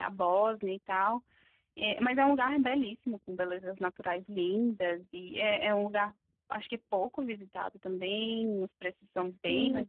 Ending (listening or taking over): taking over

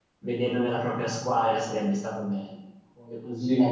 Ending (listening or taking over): listening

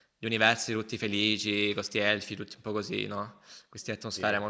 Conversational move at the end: listening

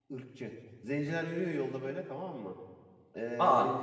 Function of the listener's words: listening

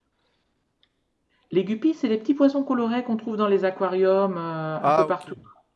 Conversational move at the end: taking over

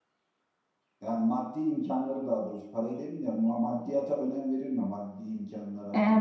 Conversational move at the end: taking over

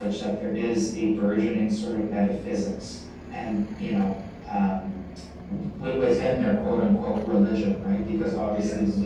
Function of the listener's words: listening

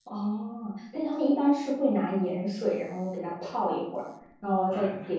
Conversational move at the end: listening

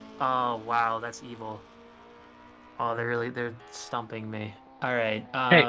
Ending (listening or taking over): taking over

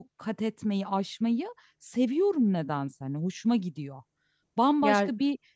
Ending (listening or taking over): listening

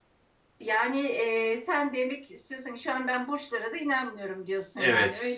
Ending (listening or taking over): taking over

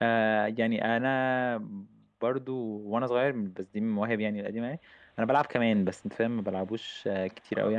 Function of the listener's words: taking over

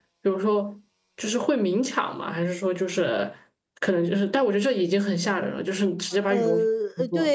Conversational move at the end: taking over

